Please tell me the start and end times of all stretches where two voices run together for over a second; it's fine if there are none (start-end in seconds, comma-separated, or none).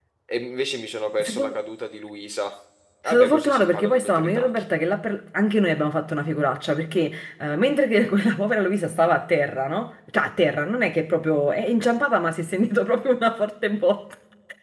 3.0-4.6